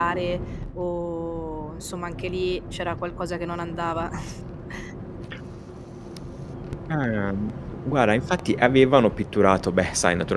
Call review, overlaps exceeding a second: none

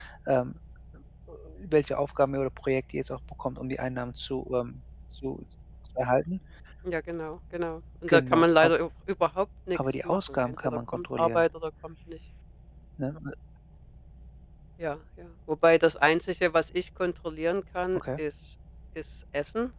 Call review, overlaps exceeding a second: present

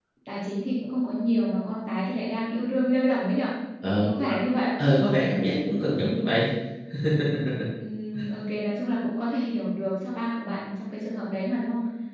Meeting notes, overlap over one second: none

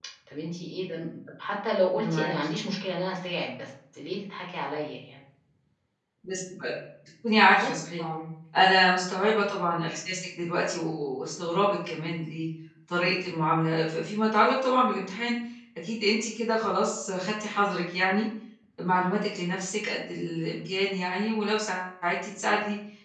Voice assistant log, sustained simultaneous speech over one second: none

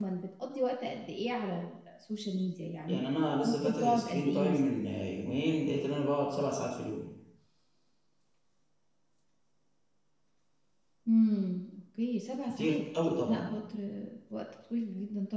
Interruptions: present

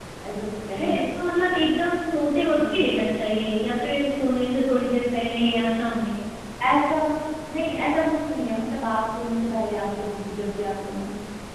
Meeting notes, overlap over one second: none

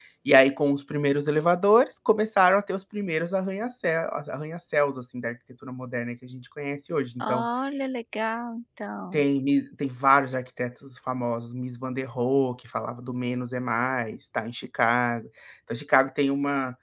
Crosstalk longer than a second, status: none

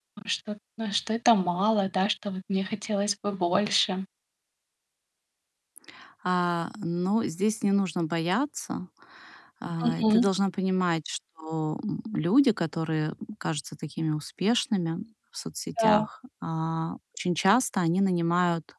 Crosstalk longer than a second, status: none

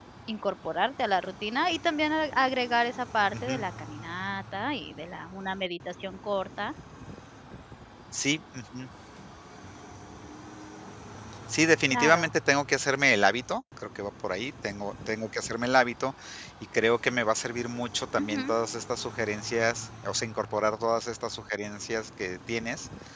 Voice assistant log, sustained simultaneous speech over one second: none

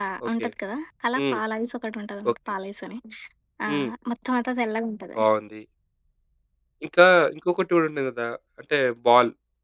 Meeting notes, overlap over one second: none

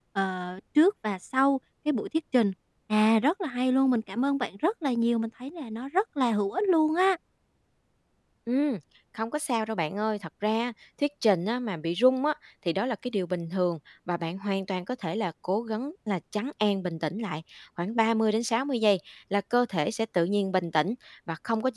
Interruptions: none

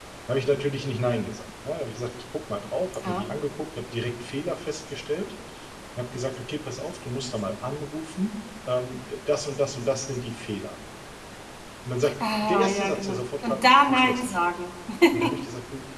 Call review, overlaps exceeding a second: present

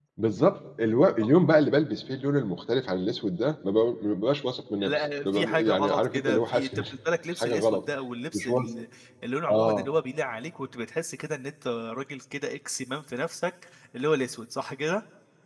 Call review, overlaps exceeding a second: present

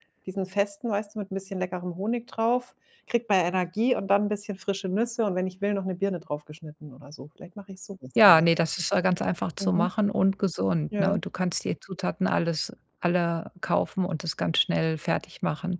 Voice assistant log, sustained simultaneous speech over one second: none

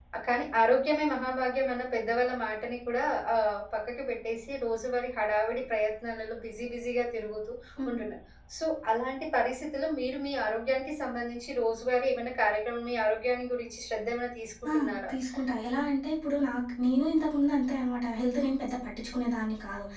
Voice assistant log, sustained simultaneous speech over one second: none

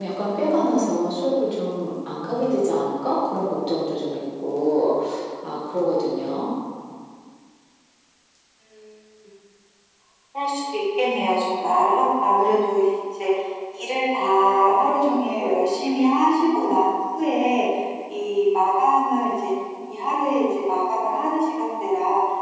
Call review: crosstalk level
none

